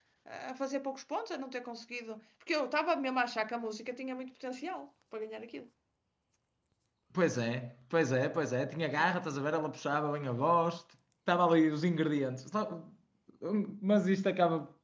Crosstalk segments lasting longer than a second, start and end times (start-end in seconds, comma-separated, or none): none